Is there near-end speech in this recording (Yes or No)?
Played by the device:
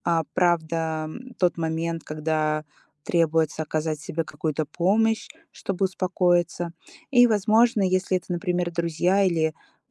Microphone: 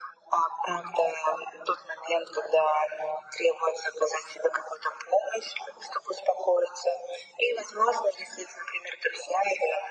No